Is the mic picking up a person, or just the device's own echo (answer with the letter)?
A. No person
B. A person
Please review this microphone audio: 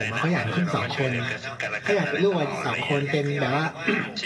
B